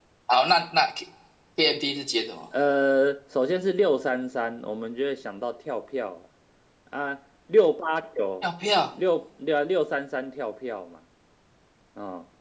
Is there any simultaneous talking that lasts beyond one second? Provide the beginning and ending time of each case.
none

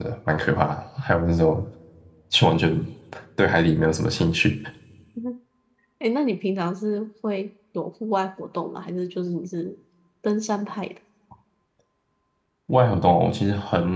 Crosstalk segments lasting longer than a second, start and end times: none

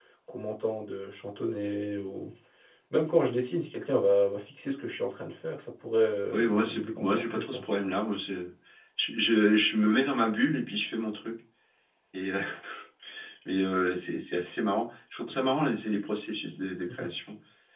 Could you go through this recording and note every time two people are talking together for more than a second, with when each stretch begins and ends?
6.3-7.6

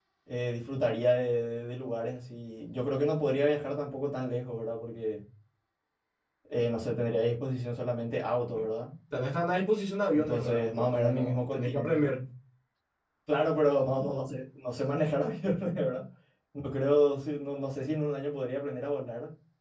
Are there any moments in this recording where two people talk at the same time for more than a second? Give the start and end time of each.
10.1-12.2

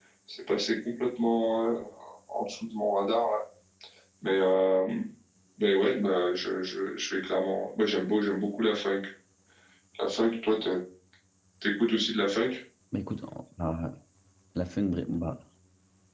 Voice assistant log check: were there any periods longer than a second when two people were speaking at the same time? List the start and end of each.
none

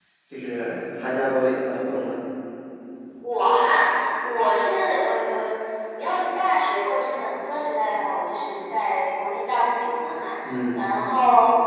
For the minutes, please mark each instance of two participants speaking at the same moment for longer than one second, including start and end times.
none

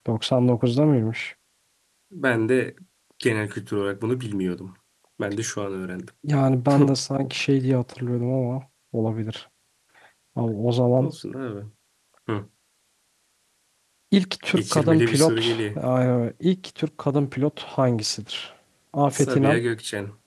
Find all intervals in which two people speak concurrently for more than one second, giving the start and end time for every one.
14.6-15.8

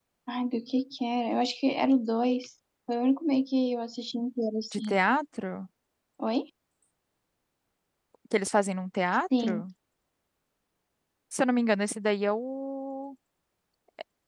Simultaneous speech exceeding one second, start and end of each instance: none

